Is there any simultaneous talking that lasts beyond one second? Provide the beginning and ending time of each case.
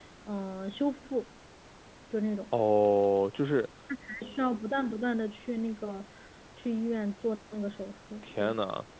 none

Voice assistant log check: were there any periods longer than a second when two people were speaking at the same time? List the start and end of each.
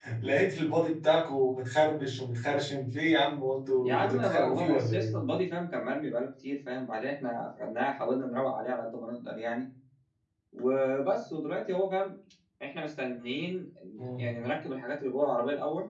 3.8-5.1

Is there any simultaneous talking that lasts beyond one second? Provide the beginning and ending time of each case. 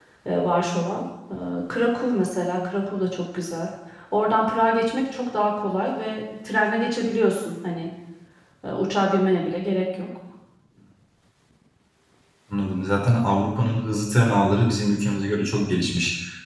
none

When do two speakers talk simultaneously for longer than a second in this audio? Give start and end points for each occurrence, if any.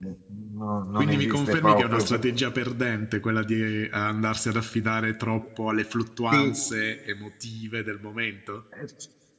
1.0-2.2

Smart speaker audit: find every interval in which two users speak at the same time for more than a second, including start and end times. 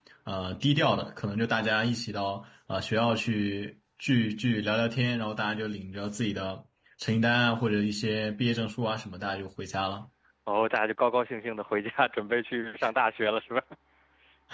none

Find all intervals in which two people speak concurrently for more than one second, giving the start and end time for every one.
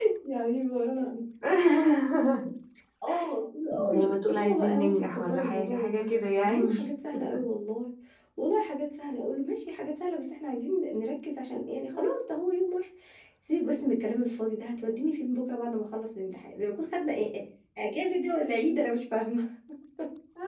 3.8-6.7

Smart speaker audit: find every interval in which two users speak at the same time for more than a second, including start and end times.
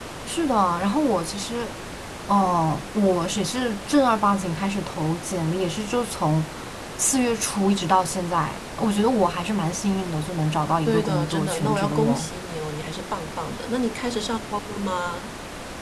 10.9-12.3

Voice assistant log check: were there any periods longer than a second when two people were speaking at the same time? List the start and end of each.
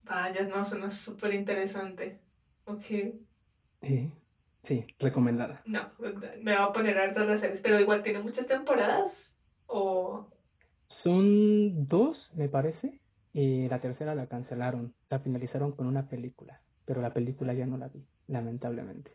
none

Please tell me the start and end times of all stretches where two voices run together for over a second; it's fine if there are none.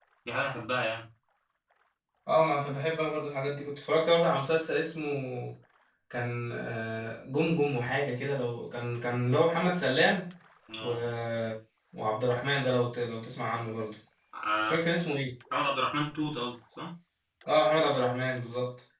none

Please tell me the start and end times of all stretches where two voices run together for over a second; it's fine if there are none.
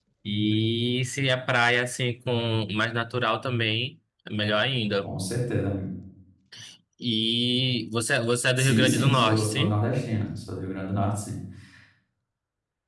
8.6-9.8

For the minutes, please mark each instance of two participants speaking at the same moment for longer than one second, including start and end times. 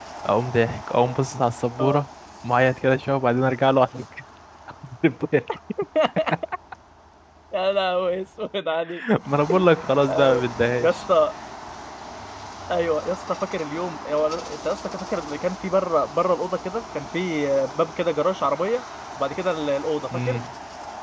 none

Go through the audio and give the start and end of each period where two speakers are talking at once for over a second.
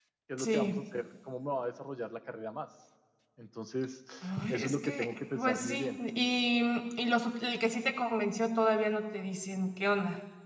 4.5-6.0

